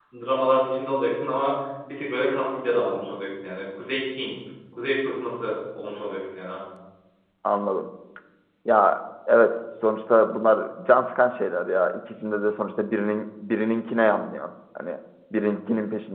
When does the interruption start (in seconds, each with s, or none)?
none